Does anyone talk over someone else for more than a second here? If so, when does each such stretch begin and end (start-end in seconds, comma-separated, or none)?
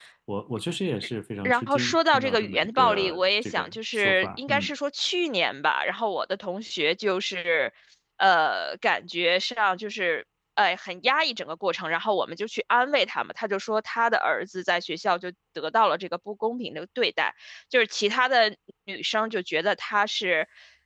1.4-4.7